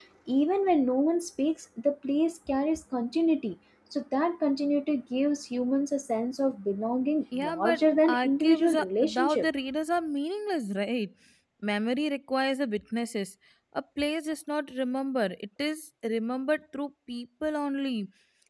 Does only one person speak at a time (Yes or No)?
No